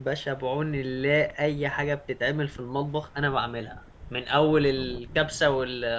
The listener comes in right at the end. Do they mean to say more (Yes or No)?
No